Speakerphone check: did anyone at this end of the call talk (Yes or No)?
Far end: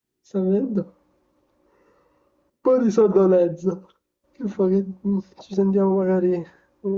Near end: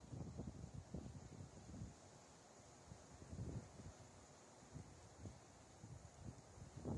No